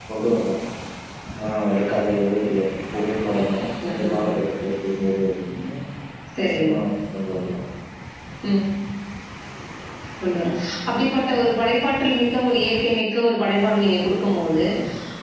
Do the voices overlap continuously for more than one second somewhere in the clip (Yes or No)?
No